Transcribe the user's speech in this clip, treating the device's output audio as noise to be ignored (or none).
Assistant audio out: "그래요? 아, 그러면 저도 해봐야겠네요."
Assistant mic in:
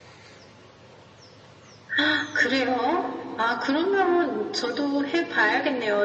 none